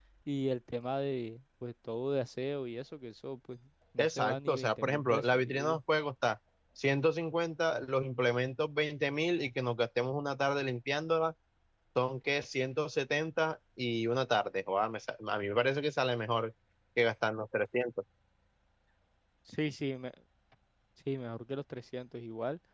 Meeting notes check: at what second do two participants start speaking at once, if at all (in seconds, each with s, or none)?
4.0 s